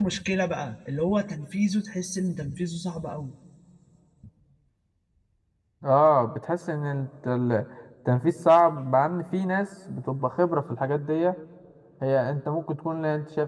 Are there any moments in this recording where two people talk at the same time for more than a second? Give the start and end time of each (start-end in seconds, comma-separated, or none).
none